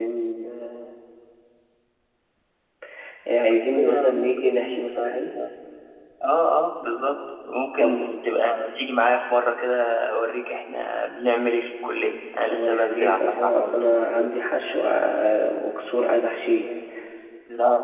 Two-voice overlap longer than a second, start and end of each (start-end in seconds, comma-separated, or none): 3.8-5.3, 12.5-14.3